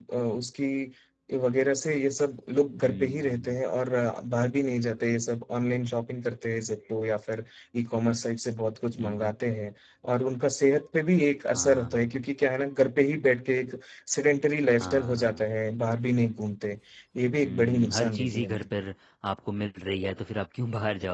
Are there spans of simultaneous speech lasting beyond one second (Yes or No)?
Yes